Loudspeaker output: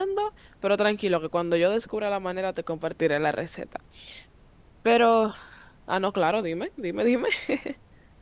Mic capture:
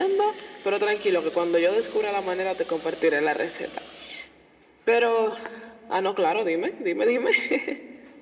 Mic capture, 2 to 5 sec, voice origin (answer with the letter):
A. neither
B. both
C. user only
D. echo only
D